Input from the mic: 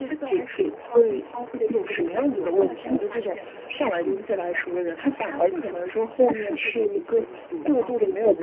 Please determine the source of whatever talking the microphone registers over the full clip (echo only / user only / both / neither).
echo only